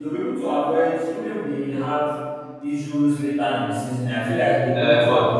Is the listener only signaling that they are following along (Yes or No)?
No